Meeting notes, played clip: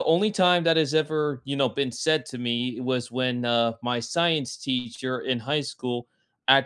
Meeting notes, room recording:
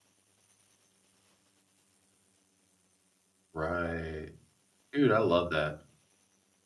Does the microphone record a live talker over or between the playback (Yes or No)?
Yes